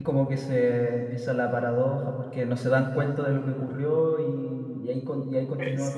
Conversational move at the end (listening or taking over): listening